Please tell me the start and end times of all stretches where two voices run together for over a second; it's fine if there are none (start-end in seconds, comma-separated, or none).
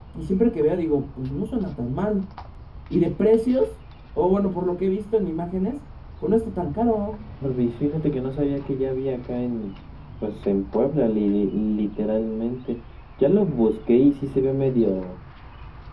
none